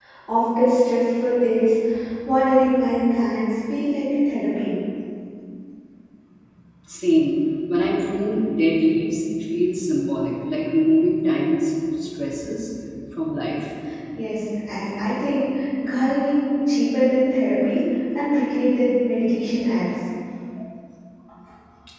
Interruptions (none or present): none